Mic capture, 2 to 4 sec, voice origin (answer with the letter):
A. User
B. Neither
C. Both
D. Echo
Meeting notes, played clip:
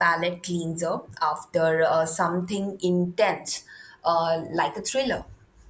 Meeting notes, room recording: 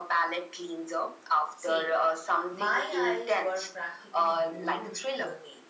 C